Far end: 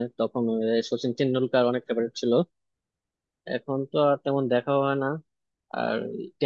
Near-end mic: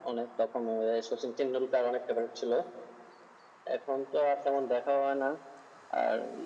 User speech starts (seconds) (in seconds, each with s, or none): none